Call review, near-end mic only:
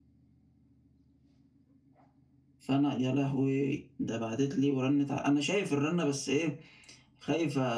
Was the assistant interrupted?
Yes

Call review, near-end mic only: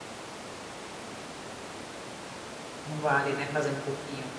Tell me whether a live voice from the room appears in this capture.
Yes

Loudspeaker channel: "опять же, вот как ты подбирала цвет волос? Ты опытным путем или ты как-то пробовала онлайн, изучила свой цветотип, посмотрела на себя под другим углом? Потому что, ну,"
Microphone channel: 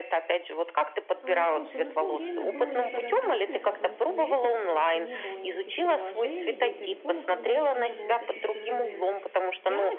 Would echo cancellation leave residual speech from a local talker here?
Yes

